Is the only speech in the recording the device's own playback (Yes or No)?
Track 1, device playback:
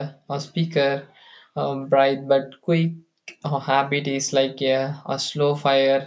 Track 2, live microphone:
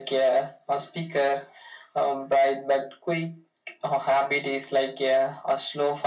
Yes